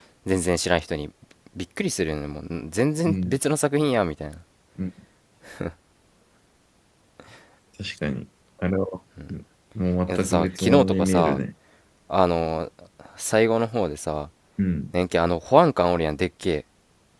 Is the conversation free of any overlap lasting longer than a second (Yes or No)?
No